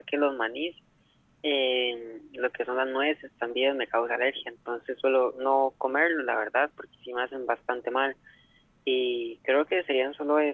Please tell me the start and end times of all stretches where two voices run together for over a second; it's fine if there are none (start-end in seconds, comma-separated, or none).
none